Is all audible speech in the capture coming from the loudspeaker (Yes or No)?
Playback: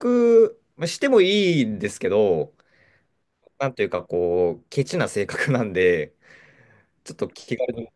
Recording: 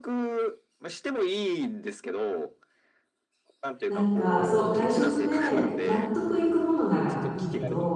No